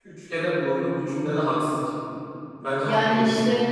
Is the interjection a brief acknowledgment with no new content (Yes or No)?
No